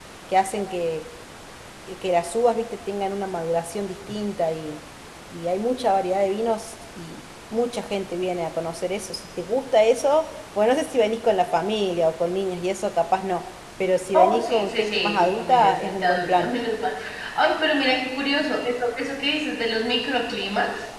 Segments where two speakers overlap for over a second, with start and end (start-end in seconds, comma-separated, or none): 14.1-16.5